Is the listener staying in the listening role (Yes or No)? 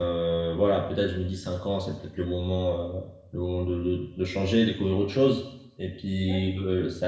Yes